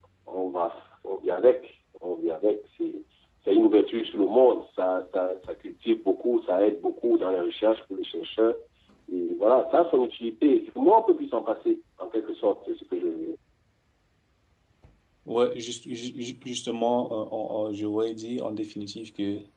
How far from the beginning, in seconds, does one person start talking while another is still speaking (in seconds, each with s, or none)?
none